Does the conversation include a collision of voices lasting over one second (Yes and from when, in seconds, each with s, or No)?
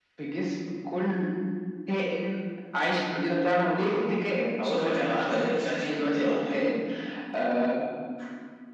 Yes, from 4.6 s